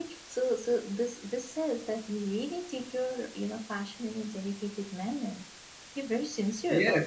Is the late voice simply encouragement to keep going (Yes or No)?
No